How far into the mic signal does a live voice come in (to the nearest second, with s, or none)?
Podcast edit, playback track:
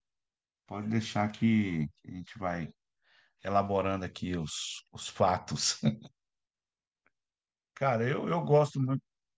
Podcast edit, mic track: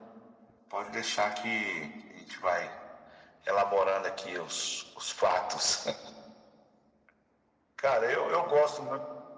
none